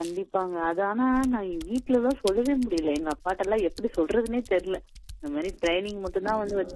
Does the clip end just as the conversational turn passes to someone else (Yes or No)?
No